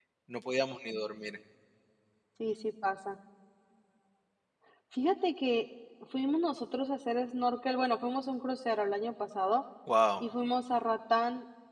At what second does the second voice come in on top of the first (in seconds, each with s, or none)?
none